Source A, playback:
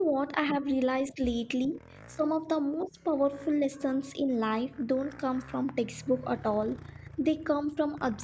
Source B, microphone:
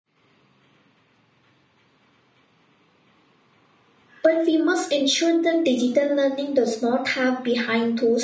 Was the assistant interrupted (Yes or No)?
Yes